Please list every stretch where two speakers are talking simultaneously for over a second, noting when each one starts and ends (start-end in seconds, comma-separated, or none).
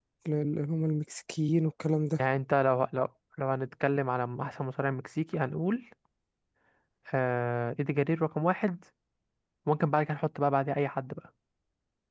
none